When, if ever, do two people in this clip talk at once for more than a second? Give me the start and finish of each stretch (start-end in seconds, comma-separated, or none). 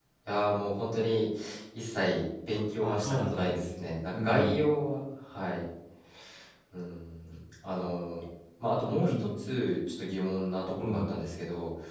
2.8-4.7